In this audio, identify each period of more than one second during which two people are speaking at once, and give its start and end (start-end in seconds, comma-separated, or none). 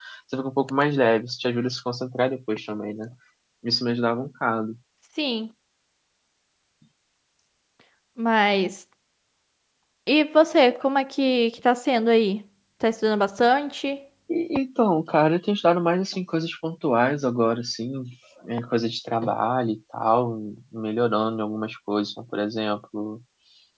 none